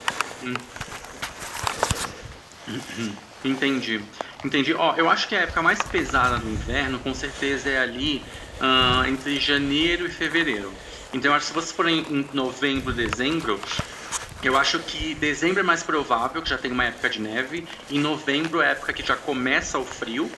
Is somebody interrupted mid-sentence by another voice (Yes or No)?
No